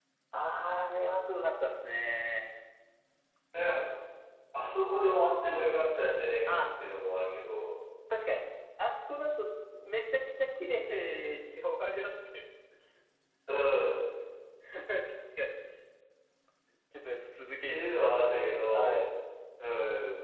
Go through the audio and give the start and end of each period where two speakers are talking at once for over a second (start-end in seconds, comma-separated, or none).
17.7-19.0